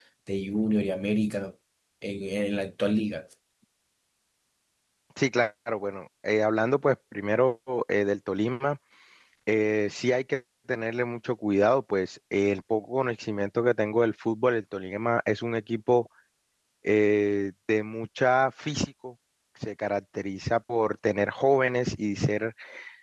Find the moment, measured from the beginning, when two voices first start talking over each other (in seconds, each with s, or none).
none